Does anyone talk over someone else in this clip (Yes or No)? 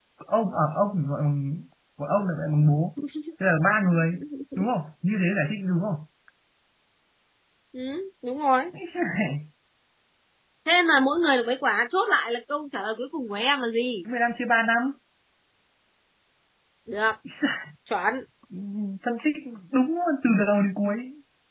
No